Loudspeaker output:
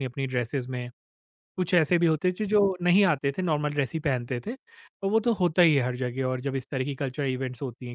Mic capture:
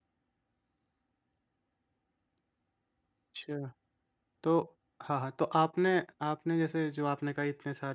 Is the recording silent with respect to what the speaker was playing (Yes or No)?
Yes